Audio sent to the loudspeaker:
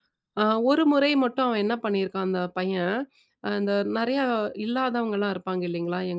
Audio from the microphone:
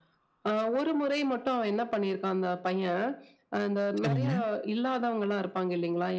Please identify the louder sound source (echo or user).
user